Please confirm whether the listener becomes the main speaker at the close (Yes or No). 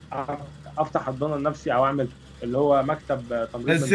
Yes